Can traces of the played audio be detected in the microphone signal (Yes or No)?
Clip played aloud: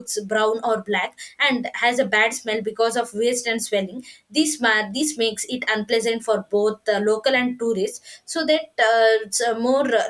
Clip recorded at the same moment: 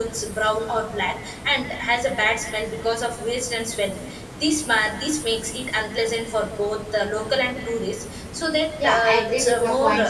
Yes